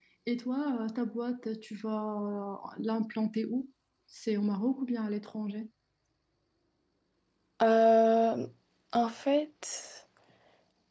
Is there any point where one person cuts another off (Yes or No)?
No